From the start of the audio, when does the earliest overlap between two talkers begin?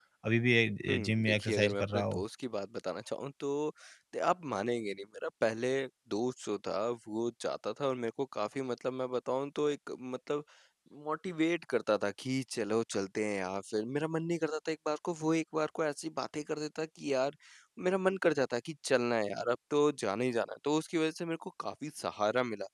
0.9 s

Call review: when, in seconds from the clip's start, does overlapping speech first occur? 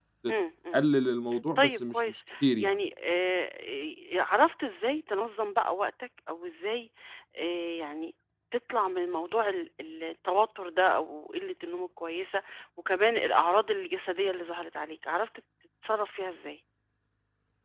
1.6 s

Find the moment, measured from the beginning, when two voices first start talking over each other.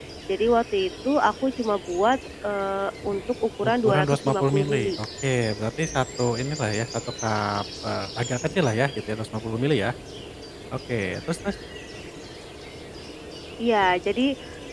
3.6 s

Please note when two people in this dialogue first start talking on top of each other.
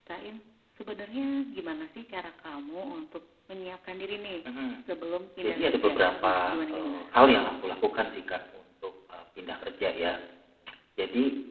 5.4 s

